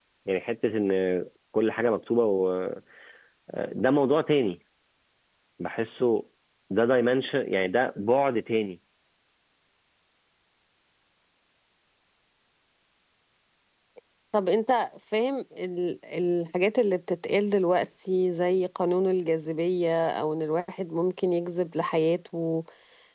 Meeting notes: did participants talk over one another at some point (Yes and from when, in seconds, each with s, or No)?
No